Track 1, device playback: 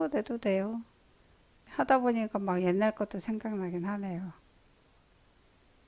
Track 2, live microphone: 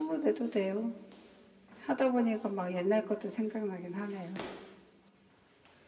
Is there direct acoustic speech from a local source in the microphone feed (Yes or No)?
No